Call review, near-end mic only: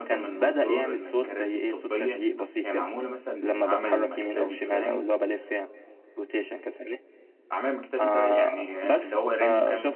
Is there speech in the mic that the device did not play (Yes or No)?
Yes